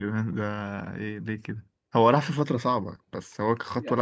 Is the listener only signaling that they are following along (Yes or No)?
No